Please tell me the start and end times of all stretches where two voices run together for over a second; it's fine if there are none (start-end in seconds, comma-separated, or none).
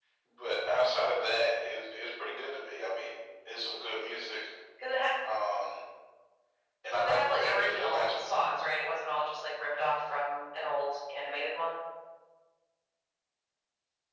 7.0-8.5